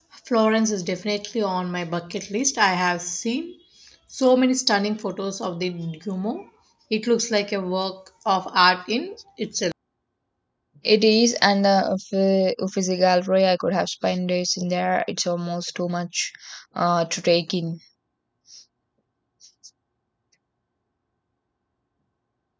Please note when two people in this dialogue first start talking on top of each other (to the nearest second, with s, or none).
none